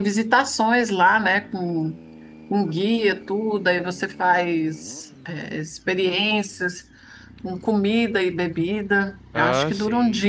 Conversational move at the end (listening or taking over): listening